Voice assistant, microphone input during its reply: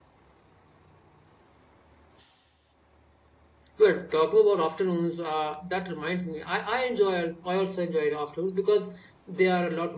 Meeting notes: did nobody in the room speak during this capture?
No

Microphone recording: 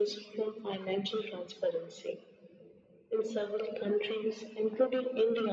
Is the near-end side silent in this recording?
Yes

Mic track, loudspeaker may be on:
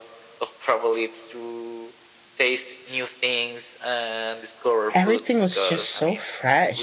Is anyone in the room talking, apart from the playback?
Yes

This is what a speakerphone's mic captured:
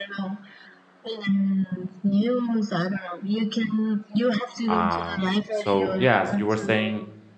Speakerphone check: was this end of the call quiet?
No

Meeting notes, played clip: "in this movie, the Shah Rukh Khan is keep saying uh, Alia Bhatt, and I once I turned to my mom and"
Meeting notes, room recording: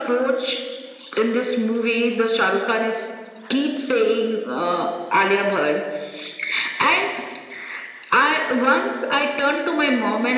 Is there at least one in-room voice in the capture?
No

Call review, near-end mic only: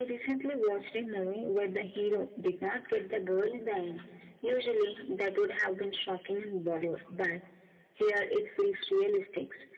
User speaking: No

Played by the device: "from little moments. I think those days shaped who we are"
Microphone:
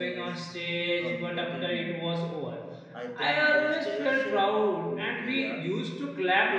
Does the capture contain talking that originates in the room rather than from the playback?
Yes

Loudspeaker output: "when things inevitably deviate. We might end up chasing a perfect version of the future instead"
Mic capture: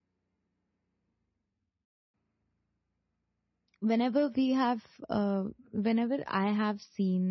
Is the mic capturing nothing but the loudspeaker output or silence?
No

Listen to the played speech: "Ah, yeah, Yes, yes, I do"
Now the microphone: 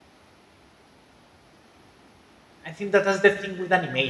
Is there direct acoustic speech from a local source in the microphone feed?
Yes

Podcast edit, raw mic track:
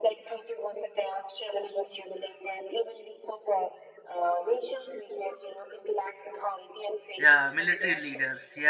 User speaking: Yes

